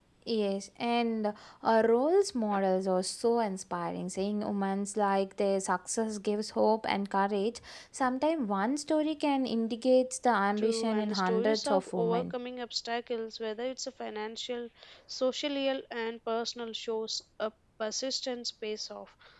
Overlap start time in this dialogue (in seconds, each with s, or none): 10.6 s